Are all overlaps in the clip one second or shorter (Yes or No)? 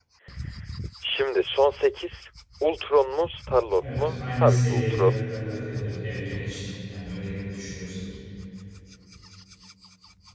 No